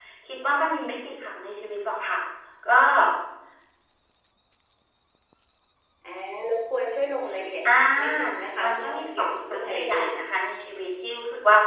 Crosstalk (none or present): present